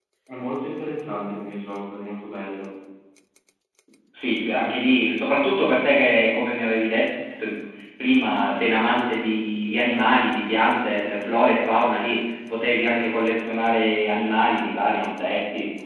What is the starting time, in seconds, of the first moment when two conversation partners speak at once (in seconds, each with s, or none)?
none